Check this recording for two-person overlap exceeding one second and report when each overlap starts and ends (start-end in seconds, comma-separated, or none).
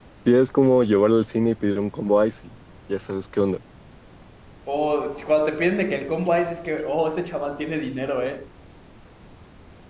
none